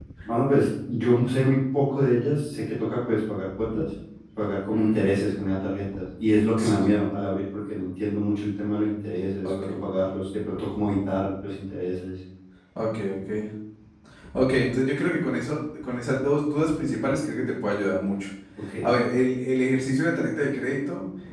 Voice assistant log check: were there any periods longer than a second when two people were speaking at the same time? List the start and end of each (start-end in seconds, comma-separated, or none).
none